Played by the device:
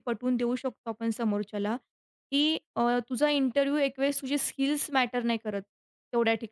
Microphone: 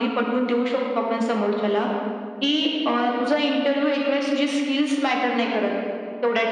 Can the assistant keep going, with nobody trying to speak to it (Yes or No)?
Yes